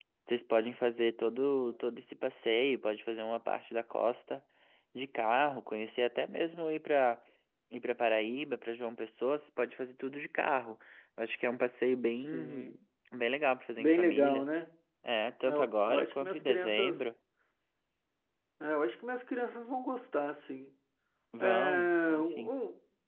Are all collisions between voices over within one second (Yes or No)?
No